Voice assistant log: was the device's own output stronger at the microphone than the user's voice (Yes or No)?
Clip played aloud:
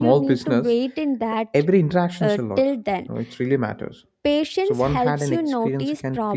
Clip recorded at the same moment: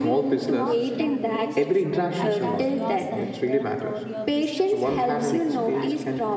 Yes